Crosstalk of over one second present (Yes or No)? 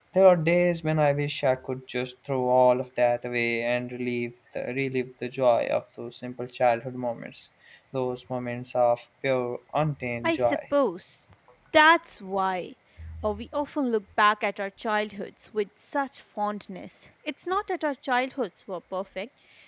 No